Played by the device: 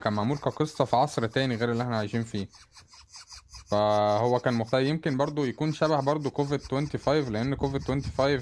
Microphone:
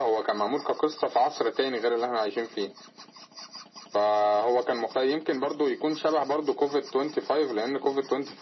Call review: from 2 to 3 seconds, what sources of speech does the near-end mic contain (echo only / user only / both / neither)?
echo only